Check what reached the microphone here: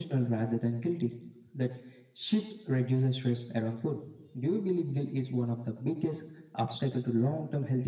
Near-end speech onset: none

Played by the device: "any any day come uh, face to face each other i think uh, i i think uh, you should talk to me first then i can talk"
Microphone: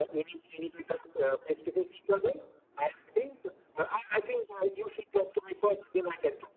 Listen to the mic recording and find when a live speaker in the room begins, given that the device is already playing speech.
none

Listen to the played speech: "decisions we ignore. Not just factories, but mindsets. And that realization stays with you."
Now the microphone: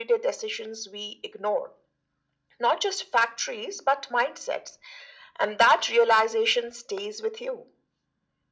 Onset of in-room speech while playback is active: none

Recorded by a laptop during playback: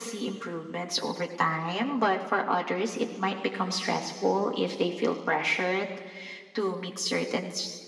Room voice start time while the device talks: none

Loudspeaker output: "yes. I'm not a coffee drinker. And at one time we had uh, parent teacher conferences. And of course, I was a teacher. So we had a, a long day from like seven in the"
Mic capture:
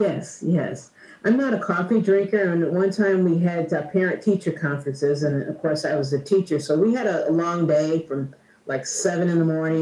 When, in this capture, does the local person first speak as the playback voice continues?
none

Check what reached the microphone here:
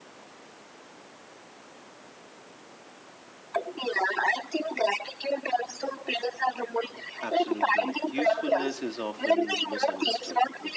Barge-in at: 7 s

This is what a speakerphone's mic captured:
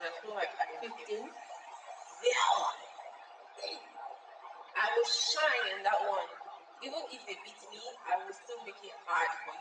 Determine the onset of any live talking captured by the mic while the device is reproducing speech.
1 s

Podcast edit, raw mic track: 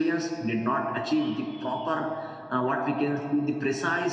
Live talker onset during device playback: none

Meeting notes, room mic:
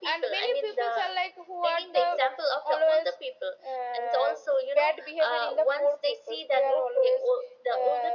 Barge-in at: none

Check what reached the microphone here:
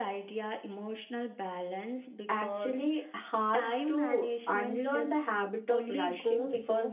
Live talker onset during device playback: 2 s

